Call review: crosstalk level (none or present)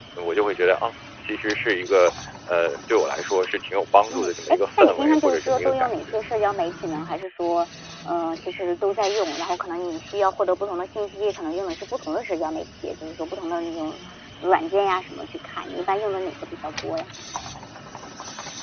present